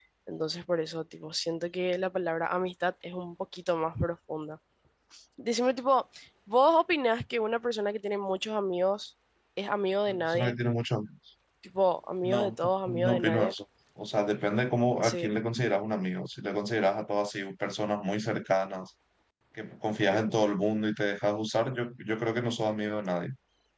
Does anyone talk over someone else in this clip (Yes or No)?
Yes